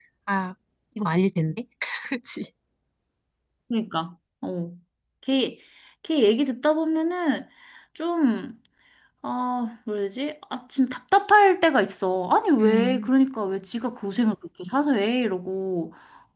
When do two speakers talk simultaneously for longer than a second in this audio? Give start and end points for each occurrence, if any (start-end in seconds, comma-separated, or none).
none